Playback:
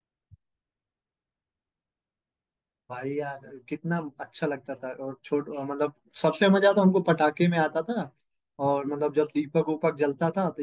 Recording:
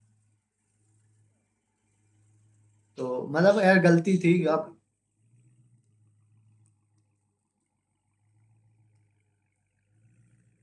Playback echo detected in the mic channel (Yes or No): No